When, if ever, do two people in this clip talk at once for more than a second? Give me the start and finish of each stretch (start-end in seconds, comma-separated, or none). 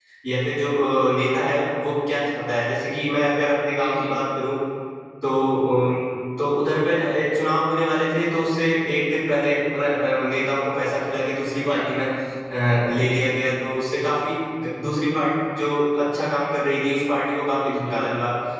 none